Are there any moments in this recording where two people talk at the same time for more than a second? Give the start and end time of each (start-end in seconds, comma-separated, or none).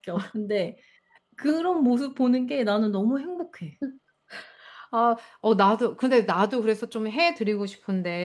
none